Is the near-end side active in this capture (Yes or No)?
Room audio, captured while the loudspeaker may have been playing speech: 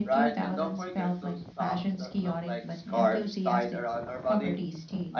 No